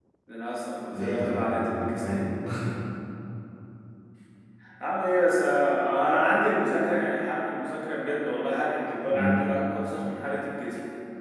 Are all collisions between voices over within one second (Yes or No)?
No